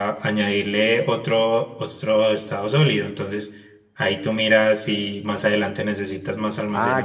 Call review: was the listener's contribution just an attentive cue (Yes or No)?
No